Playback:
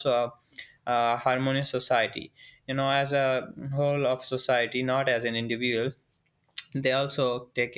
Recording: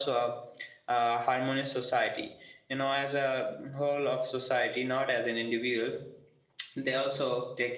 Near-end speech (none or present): none